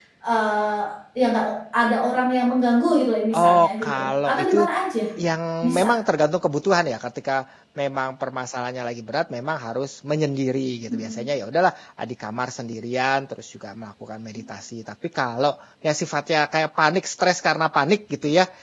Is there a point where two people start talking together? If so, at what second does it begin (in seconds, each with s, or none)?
3.3 s